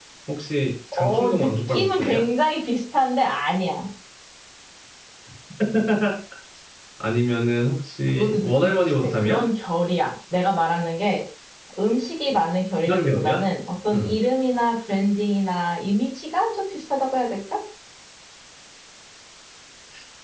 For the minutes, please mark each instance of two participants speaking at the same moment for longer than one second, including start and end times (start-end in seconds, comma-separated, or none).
0.9-2.2, 8.2-9.4